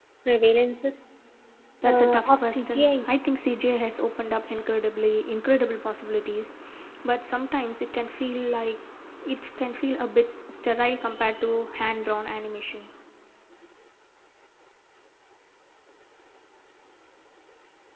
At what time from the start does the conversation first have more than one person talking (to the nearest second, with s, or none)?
2 s